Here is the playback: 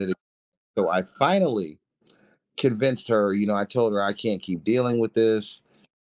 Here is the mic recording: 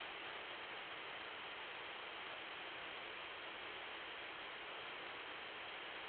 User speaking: No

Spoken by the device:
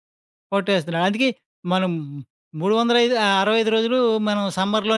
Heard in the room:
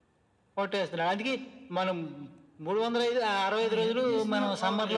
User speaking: Yes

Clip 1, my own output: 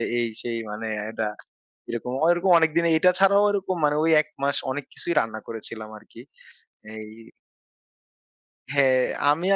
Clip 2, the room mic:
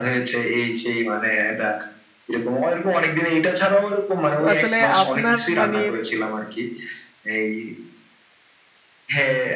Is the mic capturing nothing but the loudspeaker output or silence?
No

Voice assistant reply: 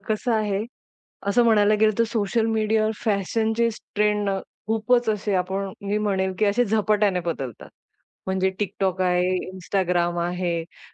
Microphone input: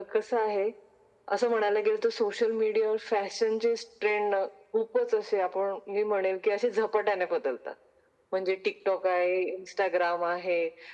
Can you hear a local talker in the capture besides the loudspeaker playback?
No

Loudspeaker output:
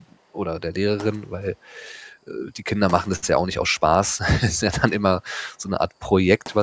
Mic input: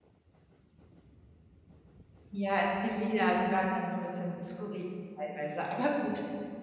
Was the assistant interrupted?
Yes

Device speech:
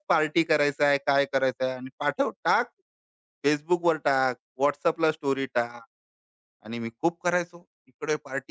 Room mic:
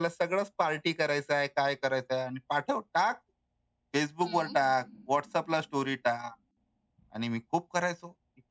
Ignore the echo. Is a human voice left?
Yes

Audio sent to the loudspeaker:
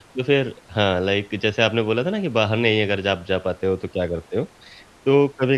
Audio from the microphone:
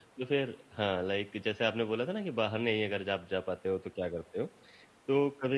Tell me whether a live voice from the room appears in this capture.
No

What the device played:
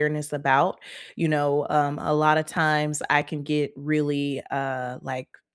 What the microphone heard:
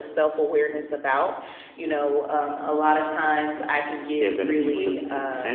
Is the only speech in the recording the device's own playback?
No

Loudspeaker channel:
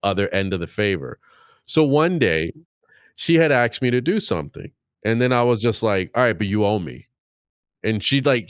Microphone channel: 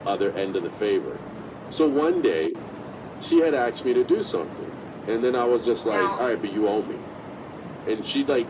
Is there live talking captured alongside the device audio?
Yes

